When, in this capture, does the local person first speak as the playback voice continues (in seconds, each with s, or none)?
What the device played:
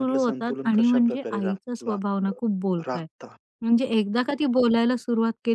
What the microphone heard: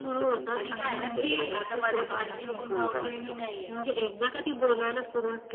0.5 s